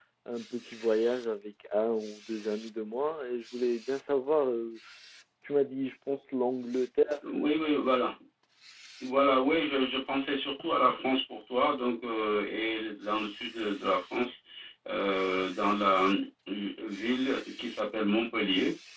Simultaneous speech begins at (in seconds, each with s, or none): none